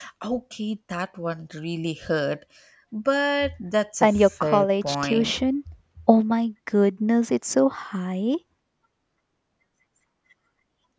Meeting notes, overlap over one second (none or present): present